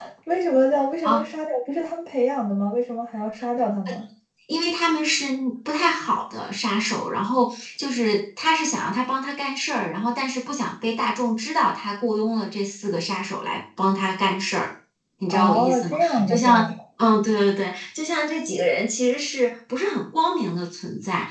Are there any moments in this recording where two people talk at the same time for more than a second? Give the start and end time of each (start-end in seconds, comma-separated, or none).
15.3-16.6